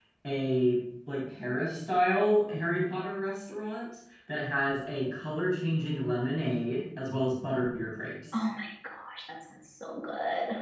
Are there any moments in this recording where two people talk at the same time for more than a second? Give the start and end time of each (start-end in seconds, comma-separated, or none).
none